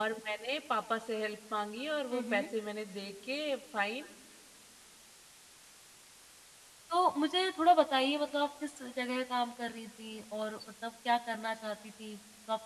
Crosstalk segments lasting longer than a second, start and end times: none

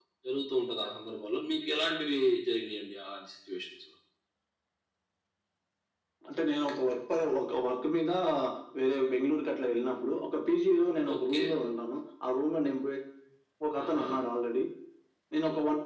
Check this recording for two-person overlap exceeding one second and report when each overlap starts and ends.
none

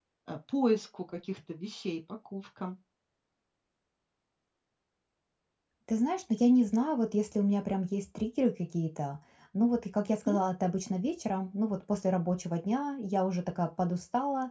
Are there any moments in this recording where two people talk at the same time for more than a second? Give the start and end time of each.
none

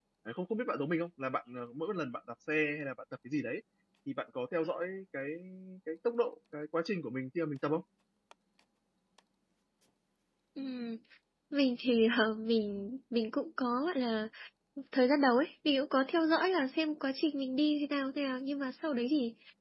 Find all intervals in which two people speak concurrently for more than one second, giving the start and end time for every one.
none

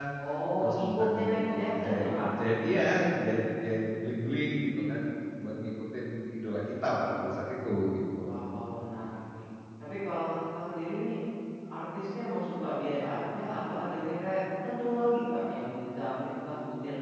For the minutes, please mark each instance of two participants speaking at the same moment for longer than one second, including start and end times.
0.6-2.0

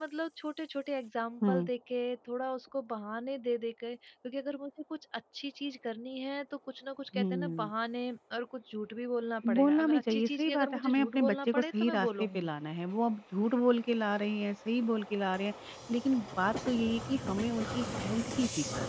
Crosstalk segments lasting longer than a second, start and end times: 9.6-12.5

